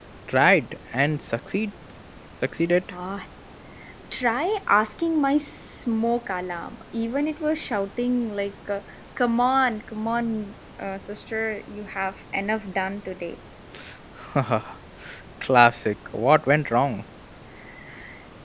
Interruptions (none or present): none